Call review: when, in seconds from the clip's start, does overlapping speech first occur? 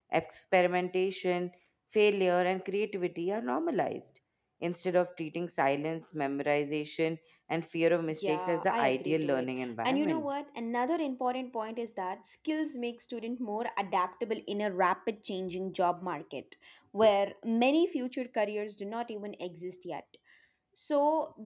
8.1 s

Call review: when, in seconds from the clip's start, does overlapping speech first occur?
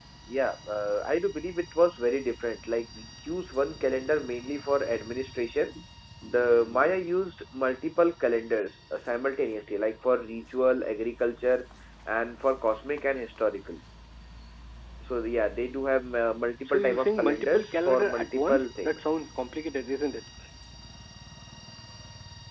16.7 s

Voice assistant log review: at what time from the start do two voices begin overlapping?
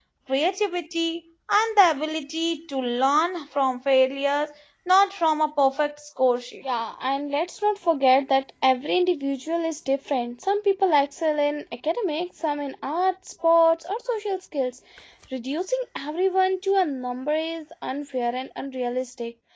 none

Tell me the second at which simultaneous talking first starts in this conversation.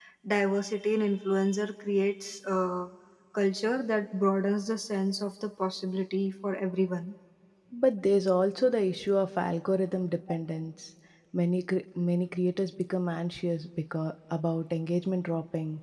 none

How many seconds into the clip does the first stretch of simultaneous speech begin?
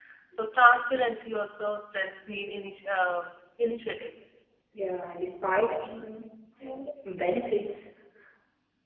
none

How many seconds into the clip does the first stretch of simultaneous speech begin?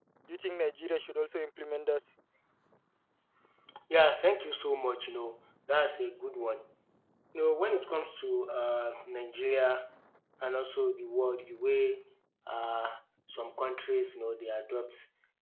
none

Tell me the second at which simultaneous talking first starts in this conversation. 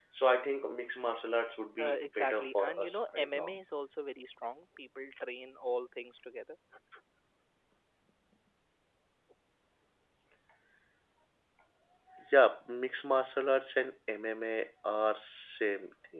1.8 s

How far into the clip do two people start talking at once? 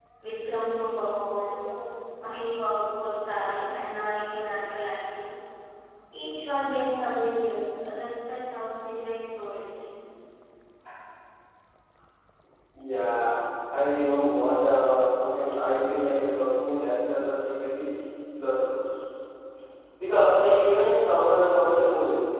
none

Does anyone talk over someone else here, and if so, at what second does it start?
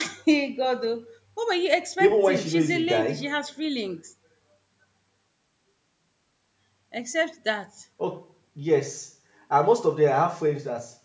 2.0 s

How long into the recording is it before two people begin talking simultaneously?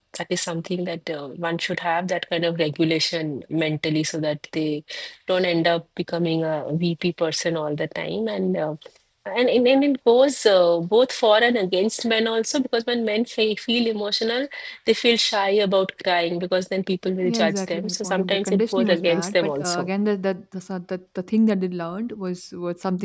17.2 s

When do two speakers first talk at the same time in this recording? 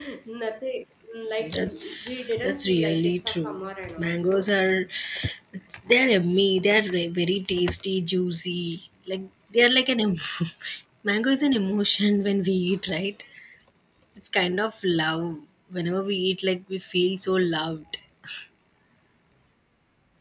1.4 s

